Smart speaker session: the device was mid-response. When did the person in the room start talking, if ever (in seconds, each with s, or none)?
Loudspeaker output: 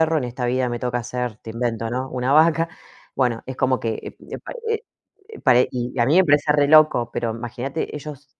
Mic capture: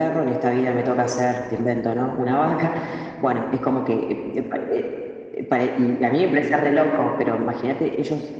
none